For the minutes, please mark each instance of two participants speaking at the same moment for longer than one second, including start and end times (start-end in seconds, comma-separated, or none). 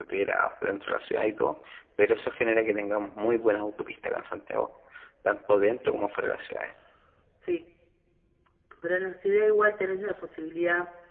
none